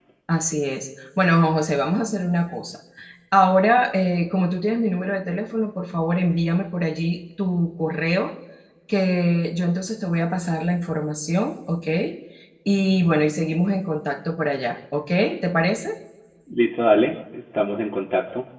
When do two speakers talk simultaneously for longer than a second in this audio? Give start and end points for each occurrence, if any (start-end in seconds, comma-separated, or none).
none